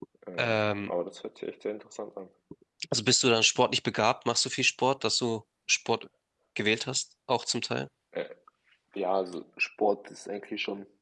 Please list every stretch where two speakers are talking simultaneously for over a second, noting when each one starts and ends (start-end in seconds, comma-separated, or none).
none